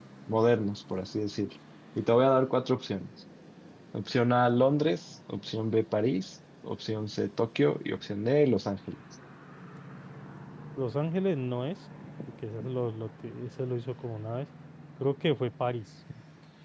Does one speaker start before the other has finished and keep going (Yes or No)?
No